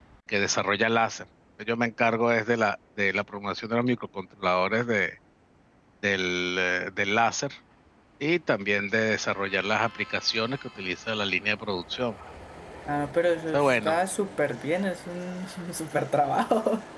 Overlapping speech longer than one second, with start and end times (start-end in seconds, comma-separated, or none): none